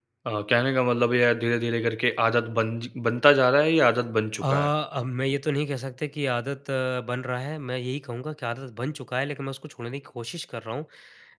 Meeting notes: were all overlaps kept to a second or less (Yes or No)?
Yes